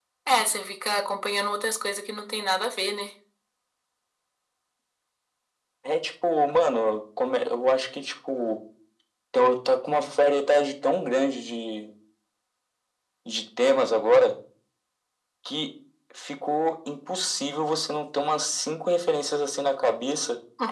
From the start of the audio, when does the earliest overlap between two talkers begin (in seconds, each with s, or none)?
none